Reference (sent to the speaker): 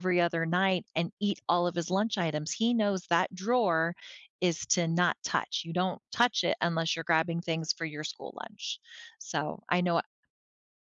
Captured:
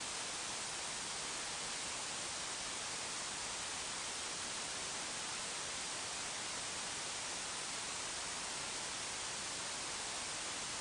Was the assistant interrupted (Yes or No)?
No